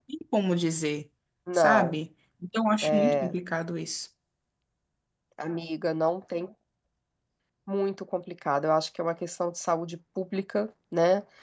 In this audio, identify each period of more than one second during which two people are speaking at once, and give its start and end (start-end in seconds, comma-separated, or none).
none